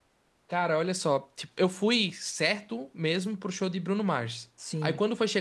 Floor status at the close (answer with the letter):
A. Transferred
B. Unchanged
B